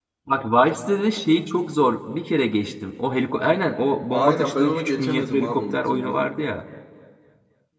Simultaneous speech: Yes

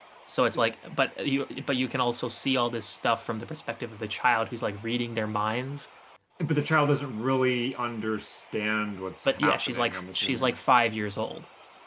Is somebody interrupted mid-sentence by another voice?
Yes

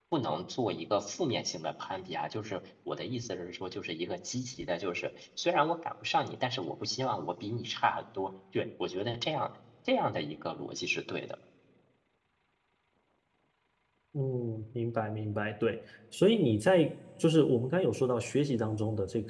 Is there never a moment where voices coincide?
Yes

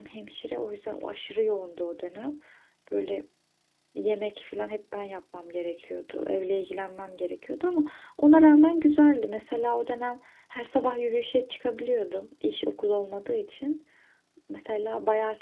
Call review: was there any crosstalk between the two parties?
No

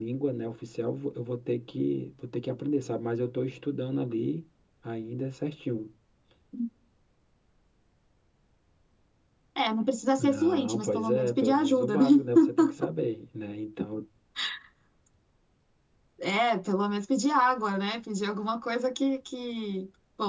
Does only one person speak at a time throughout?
No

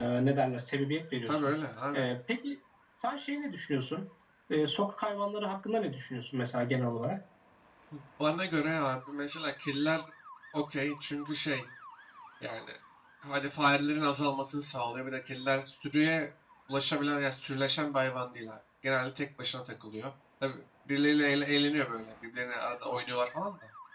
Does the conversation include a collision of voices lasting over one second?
No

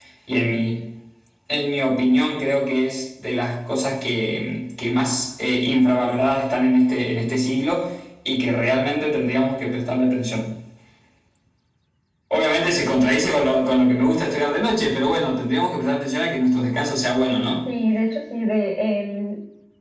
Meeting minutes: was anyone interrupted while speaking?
No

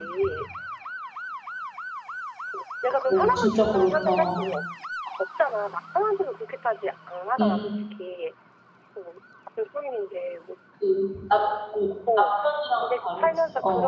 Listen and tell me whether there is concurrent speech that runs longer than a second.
Yes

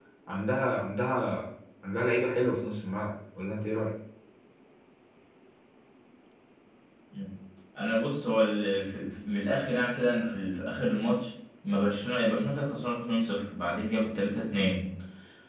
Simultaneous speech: No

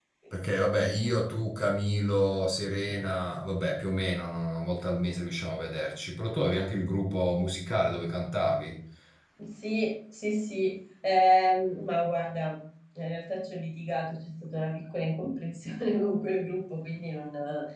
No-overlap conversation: Yes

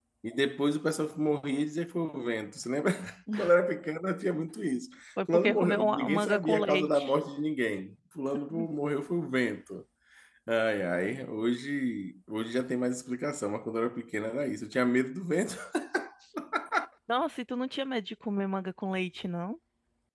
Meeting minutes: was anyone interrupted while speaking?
Yes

